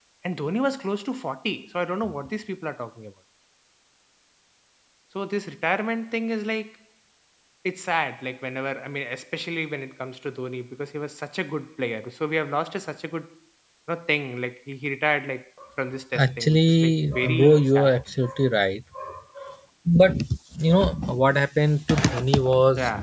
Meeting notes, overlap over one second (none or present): present